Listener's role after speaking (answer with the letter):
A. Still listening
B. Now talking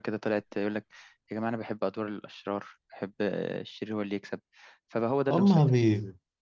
B